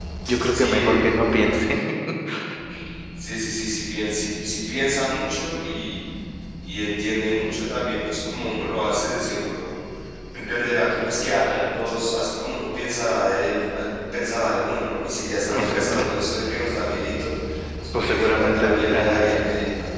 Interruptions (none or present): present